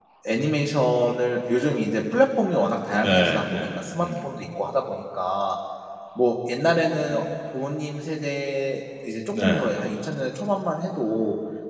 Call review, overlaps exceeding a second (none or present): present